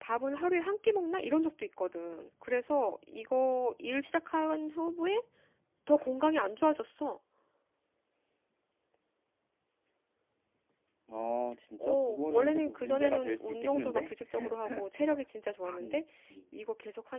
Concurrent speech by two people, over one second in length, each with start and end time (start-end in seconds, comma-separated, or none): 11.8-14.1